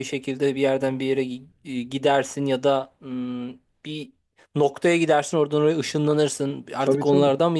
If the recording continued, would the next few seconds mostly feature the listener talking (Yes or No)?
No